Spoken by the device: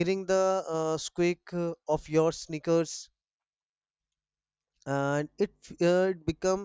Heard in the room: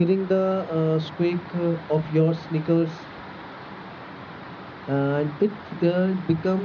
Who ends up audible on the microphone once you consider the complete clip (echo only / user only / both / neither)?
echo only